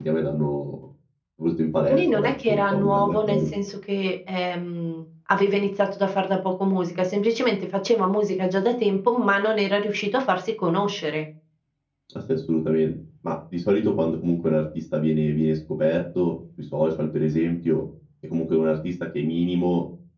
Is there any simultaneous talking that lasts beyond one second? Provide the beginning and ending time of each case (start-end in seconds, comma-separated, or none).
1.9-3.5